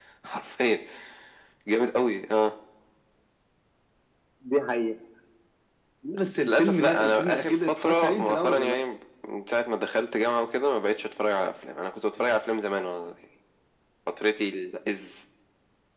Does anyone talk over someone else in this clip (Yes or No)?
Yes